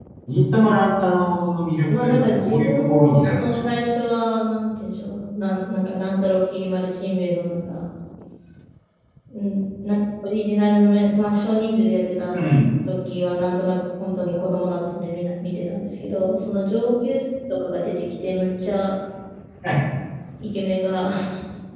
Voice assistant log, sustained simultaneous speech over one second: present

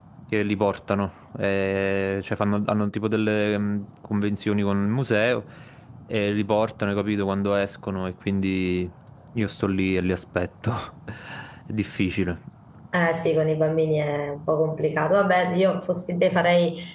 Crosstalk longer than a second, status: none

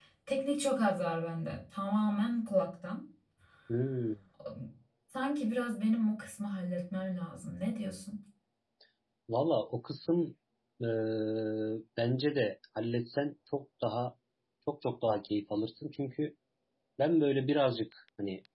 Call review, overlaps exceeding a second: none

